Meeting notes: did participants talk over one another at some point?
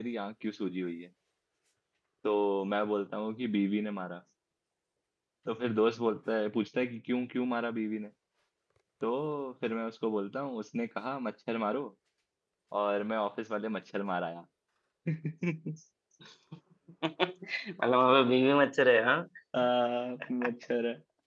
No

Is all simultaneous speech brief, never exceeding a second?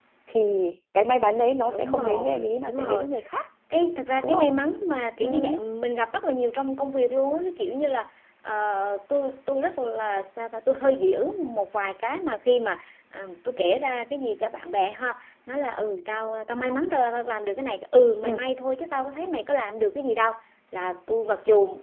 No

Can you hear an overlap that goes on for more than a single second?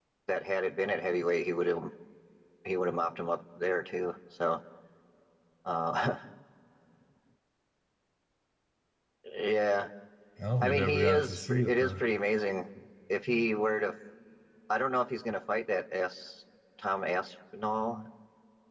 Yes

